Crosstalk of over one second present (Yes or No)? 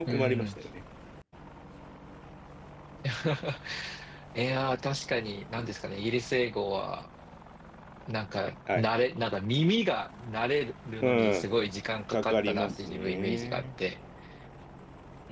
Yes